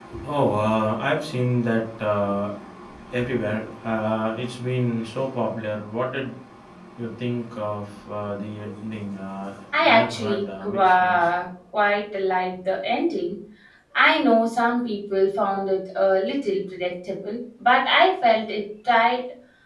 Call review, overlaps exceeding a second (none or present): present